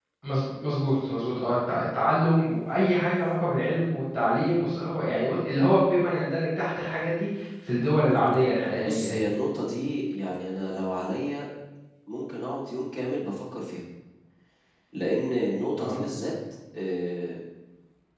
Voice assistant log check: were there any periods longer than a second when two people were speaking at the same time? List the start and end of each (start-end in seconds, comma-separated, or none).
none